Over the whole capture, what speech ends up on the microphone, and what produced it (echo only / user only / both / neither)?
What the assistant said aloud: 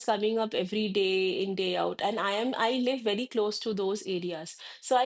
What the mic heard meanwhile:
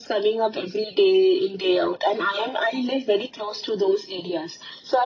echo only